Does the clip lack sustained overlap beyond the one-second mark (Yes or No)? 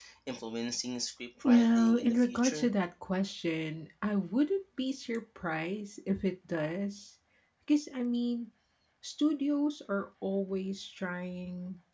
No